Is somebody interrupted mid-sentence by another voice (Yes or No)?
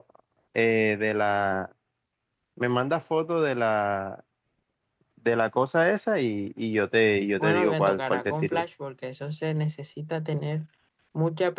Yes